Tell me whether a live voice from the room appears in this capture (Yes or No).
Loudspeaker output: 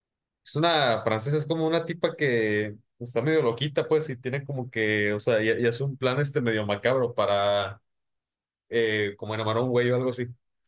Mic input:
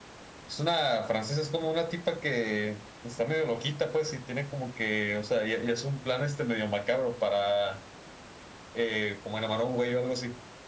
No